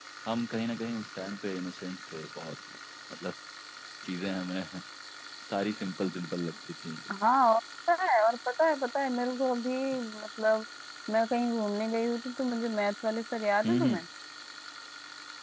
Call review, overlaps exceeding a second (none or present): none